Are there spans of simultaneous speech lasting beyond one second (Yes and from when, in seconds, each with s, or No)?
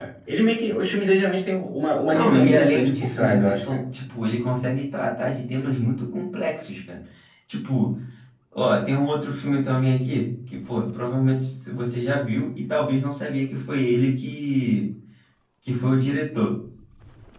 Yes, from 2.1 s